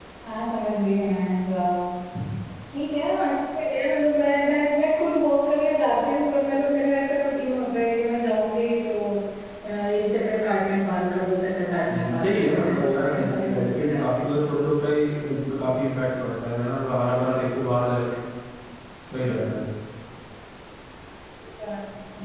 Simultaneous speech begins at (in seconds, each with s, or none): 11.9 s